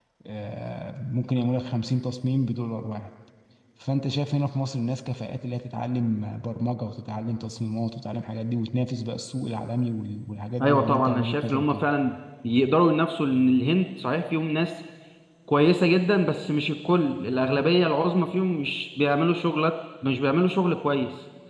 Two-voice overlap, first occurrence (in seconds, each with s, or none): 10.6 s